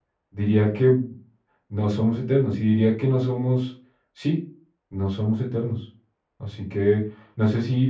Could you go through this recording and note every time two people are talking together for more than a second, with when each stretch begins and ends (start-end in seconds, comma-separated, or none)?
none